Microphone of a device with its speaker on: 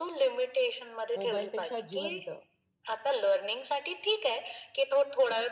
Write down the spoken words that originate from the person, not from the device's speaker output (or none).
मोबाईलपेक्षा जिवंत.